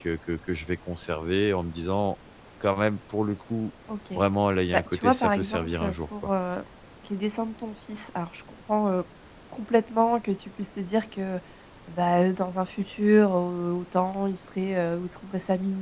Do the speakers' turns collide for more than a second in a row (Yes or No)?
Yes